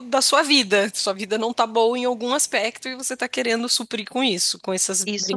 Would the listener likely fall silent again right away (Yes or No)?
No